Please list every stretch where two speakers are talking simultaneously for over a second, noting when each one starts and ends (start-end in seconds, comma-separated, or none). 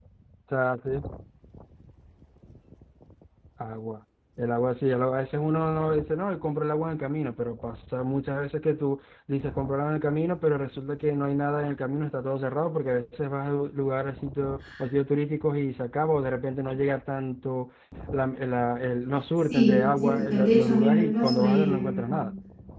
19.5-22.1